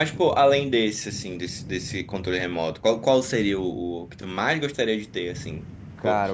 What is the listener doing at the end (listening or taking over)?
taking over